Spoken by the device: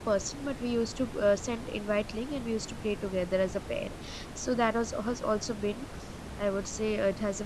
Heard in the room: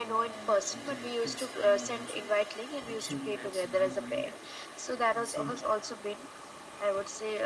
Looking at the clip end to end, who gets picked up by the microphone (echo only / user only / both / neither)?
both